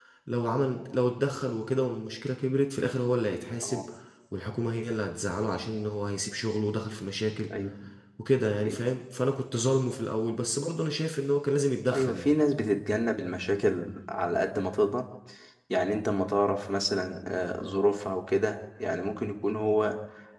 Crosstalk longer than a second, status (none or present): none